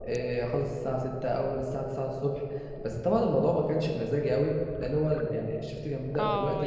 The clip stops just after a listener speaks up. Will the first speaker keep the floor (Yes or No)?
No